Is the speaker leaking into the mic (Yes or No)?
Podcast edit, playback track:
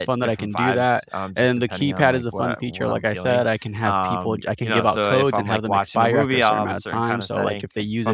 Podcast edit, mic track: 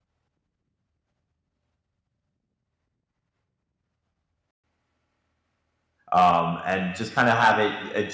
No